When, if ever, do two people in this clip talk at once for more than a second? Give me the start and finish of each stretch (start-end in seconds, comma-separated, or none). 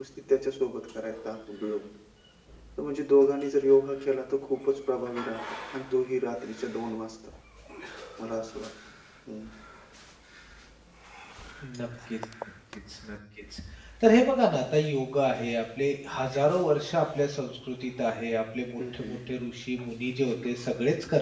none